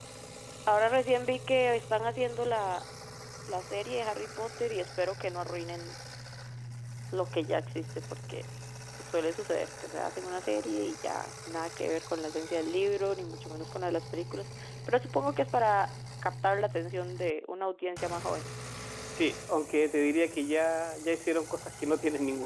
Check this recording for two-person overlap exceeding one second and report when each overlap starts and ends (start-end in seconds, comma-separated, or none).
none